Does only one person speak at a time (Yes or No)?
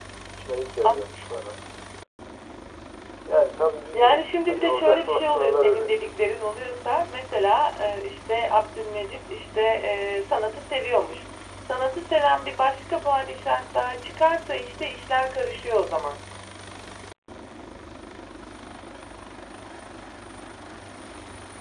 No